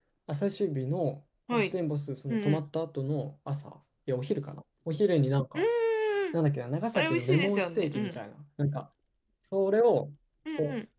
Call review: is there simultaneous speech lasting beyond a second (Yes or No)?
Yes